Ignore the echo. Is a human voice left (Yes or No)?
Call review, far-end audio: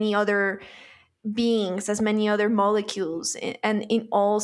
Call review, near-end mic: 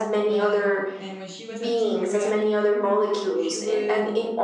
Yes